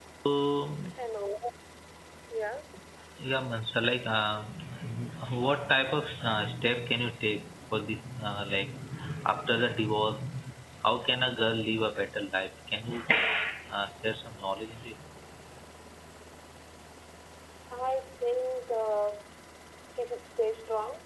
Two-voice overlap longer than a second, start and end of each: none

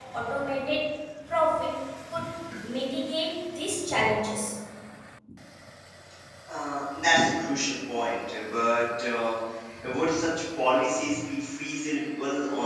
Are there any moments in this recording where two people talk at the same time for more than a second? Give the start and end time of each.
none

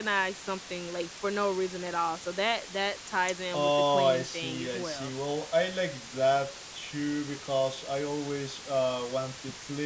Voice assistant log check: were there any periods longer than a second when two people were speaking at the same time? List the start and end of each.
3.5-5.1

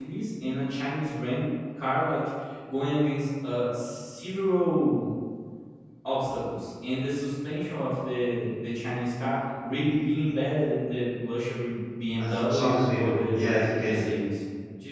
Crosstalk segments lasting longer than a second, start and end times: 12.5-14.1

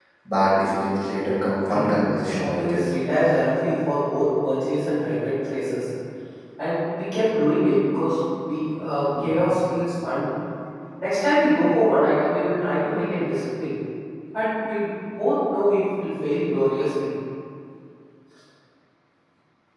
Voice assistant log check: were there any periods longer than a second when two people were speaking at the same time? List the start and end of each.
1.7-2.9

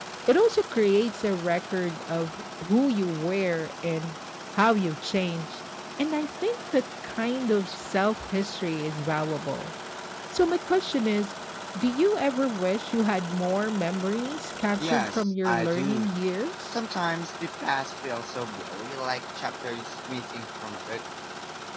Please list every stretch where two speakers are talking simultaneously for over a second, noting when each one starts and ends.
14.8-16.0

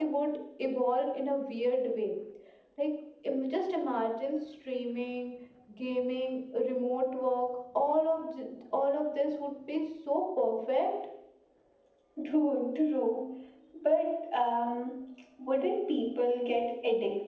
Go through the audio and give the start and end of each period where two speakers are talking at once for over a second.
none

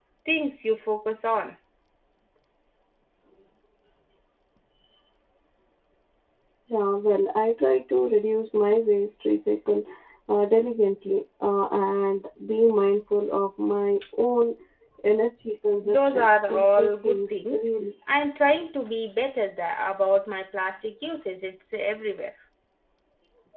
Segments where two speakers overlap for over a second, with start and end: 15.8-17.6

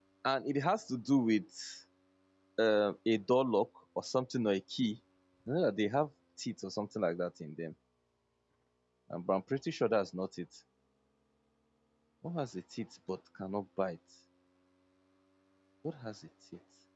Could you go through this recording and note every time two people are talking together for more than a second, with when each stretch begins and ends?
none

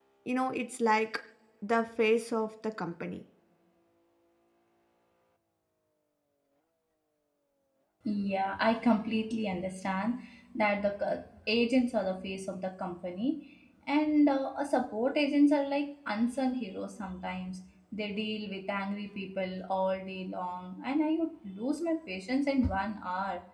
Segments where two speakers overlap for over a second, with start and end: none

